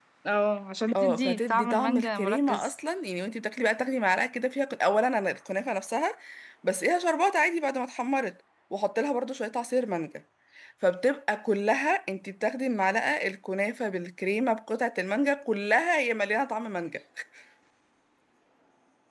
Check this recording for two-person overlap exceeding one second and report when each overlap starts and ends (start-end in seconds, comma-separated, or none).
1.0-2.7